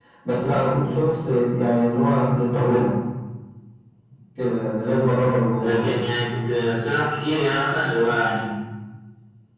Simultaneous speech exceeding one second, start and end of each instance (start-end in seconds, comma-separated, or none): none